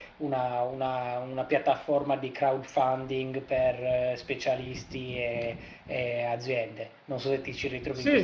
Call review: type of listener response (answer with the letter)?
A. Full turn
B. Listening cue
A